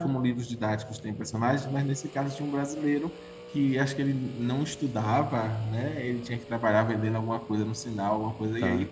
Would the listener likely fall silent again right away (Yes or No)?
Yes